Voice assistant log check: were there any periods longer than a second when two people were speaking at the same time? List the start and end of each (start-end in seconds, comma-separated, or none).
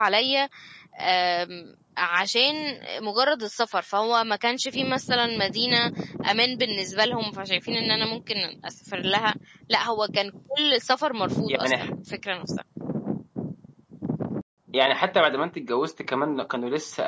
none